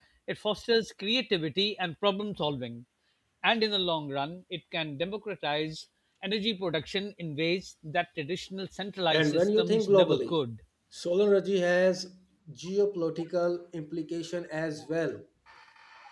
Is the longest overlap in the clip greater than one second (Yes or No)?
Yes